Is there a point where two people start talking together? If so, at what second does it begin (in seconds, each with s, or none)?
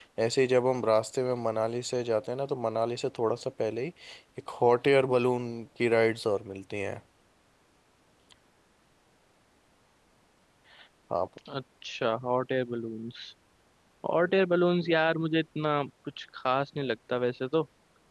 none